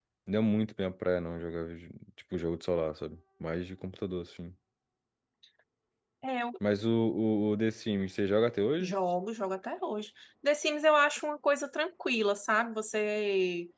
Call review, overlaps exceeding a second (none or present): none